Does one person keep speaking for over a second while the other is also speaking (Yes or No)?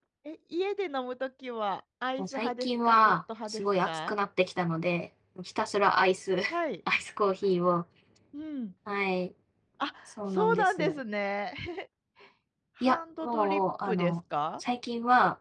Yes